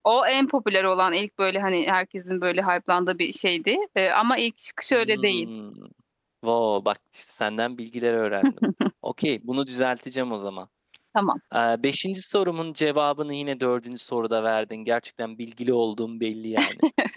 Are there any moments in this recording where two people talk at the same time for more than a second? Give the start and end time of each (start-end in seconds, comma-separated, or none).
none